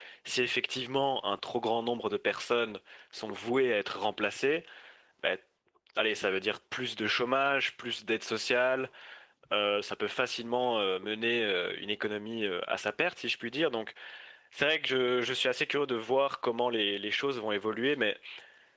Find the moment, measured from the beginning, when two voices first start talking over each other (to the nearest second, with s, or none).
none